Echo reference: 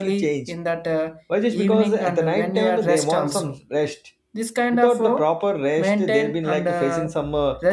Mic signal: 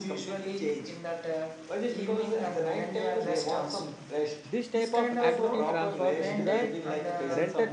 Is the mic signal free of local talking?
No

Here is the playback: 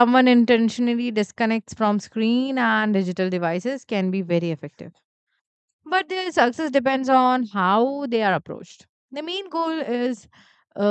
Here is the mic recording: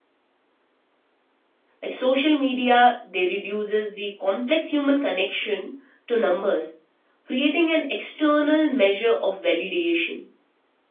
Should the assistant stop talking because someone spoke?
Yes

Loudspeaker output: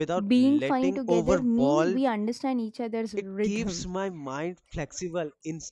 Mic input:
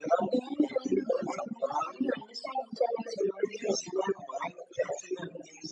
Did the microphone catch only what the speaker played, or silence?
Yes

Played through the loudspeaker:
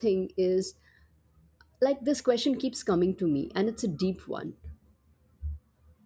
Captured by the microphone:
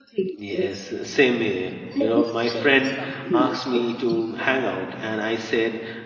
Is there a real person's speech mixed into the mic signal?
Yes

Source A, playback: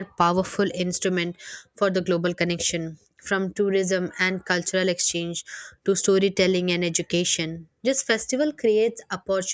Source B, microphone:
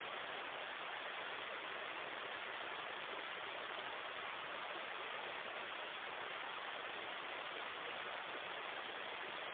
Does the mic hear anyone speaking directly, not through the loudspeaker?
No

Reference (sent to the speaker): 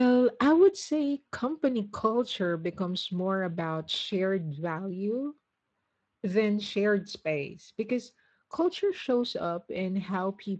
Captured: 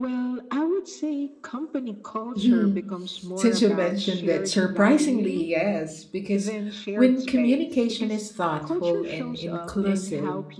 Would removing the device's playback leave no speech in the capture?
No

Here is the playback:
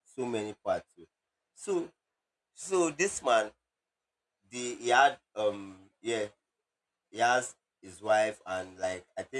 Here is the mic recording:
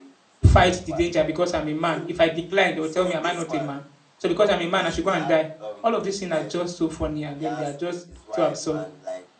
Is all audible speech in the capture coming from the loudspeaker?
No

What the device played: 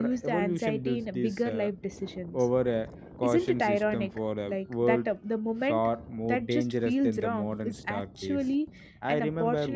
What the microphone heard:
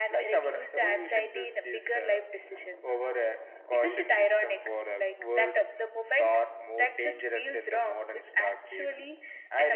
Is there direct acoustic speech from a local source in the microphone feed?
No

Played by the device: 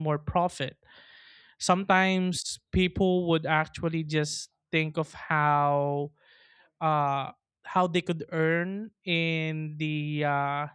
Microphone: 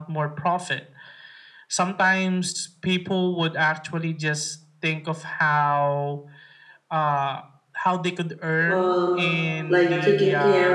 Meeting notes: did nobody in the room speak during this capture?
No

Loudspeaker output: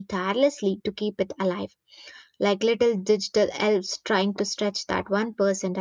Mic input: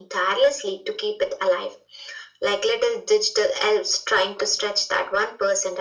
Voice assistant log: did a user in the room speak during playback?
No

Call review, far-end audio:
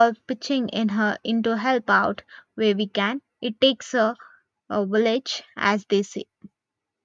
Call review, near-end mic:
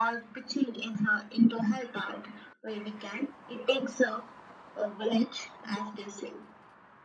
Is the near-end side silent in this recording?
Yes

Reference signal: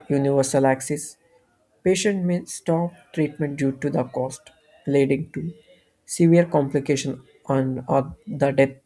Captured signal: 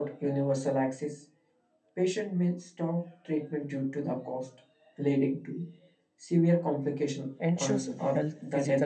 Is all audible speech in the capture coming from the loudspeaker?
No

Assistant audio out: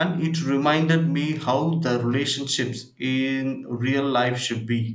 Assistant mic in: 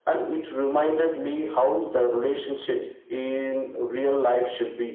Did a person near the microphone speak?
No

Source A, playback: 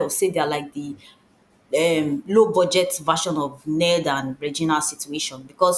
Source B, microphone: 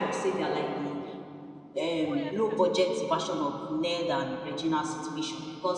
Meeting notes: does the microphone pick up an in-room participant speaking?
Yes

